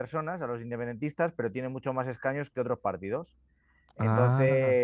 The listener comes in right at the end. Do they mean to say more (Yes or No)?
No